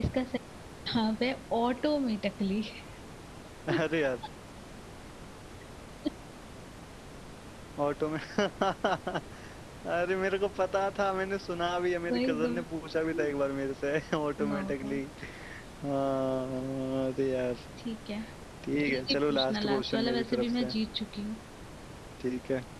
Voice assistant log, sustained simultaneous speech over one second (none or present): present